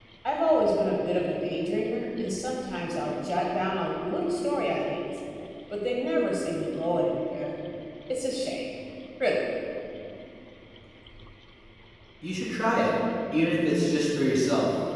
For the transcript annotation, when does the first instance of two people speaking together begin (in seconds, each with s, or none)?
none